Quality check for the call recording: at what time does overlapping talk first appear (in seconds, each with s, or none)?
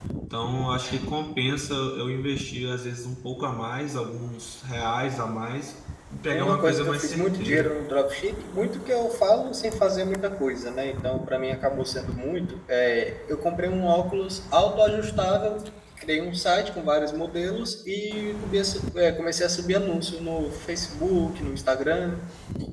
6.3 s